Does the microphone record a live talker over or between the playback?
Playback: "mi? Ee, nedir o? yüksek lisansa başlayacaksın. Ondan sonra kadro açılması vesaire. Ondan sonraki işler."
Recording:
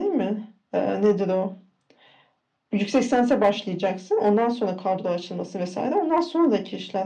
No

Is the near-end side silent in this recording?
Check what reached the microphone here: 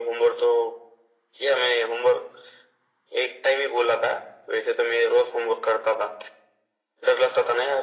Yes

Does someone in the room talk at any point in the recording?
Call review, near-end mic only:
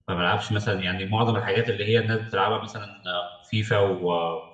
Yes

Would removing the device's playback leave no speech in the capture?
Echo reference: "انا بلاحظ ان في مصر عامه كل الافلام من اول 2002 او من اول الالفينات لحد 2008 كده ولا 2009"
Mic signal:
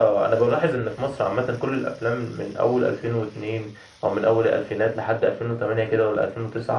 Yes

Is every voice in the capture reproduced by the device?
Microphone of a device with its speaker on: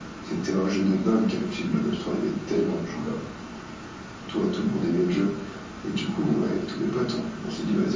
Yes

